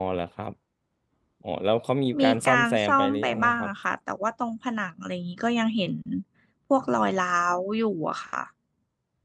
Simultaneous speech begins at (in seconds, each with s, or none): 2.2 s